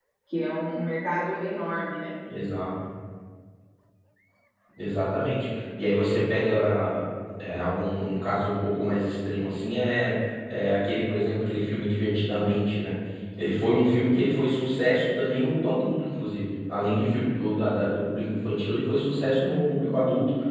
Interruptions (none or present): none